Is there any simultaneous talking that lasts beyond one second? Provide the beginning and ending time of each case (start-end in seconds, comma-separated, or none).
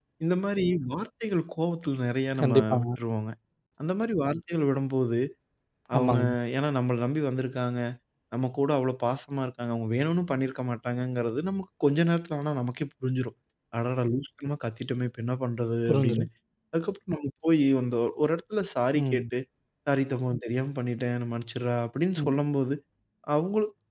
none